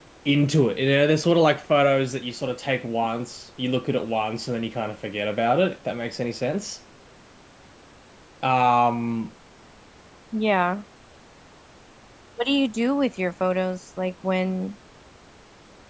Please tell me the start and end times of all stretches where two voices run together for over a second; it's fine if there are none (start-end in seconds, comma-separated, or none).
none